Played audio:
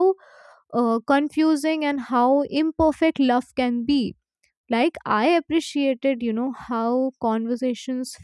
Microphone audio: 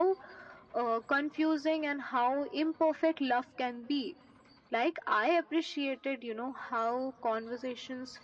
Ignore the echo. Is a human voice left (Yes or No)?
No